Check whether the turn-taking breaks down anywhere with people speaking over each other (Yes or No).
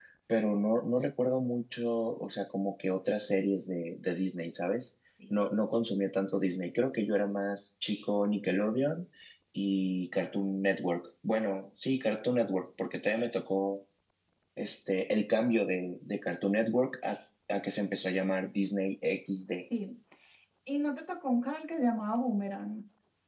No